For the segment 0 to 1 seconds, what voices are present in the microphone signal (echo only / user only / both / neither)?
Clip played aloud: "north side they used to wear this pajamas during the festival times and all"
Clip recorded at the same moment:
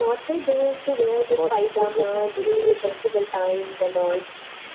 echo only